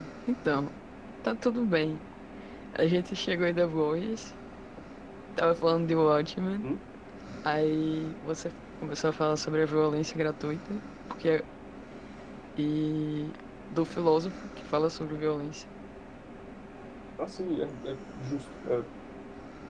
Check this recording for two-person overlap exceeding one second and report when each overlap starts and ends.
none

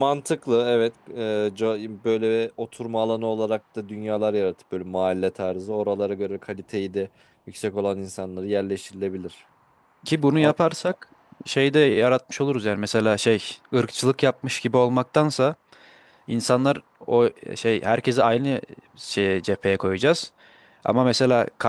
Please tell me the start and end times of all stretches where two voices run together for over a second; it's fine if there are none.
none

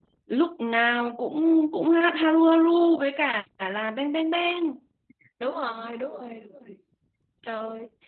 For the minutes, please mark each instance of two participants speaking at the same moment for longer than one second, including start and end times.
none

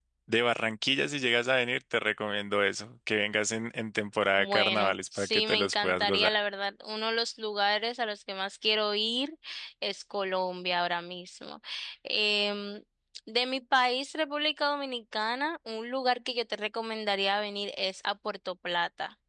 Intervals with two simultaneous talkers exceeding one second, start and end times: 4.4-6.3

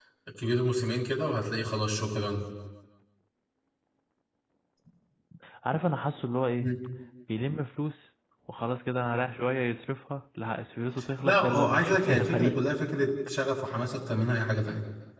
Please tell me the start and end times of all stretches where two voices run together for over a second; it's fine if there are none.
11.2-12.6

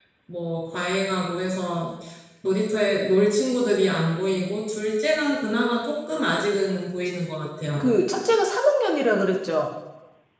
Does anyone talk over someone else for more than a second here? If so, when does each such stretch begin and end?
none

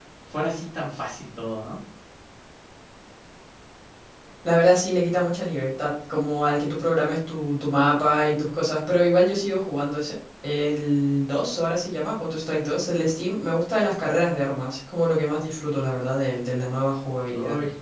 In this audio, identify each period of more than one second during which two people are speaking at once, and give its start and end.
none

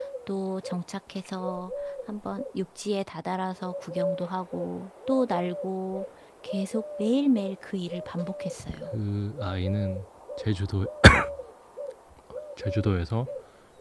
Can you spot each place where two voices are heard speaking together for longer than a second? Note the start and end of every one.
none

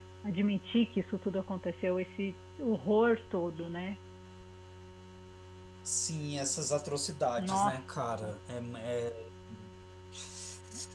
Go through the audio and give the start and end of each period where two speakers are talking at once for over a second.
none

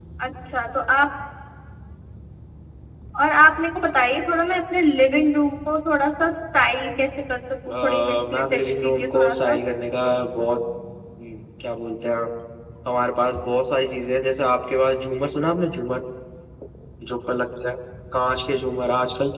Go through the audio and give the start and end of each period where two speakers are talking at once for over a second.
7.7-9.6

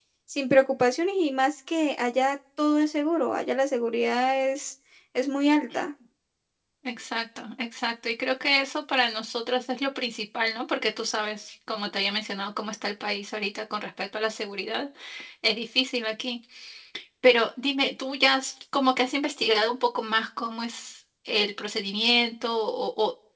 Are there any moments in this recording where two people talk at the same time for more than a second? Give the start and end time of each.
none

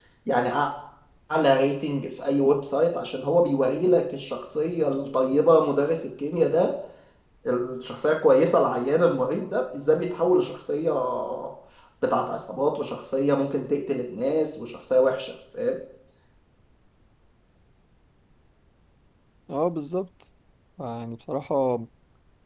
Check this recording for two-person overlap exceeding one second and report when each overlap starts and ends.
none

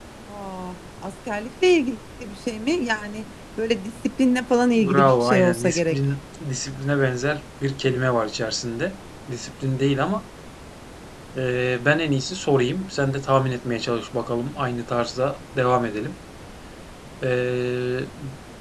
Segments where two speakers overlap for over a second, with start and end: 4.8-6.0

